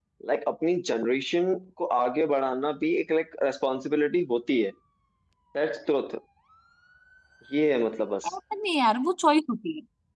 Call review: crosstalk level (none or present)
none